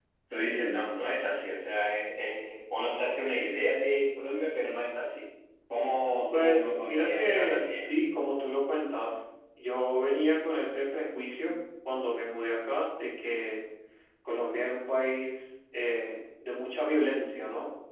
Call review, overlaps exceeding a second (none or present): present